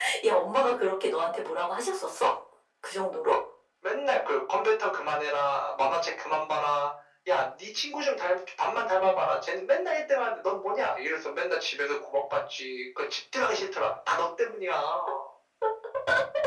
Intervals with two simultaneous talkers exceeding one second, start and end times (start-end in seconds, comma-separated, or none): none